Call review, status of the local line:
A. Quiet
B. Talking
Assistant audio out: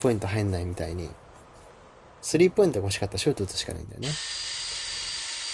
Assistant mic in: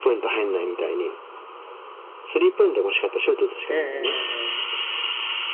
B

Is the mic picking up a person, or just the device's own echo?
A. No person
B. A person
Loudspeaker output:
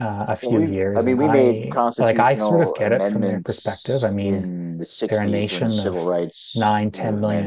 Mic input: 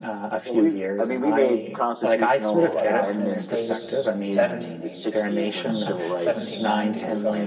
B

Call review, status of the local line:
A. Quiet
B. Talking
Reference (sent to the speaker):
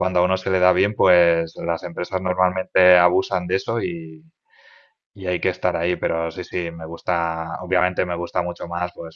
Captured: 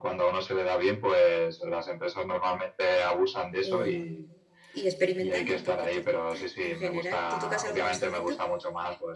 B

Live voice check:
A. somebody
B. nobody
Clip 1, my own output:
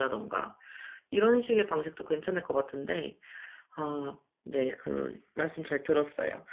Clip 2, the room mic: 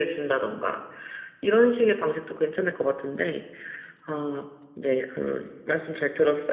B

